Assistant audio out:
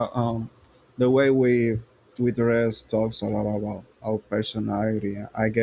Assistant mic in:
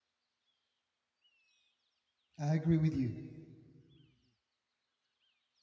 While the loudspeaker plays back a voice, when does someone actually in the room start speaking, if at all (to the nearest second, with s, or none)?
2 s